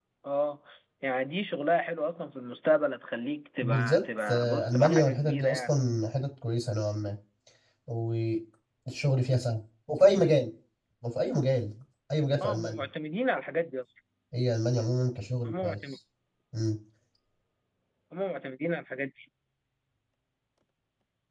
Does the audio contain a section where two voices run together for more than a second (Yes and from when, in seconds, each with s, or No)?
Yes, from 3.6 s